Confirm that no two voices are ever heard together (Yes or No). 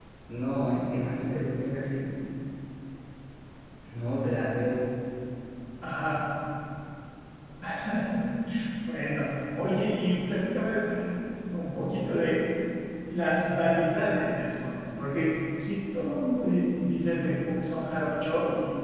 Yes